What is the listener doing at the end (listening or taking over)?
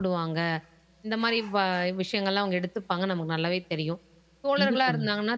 listening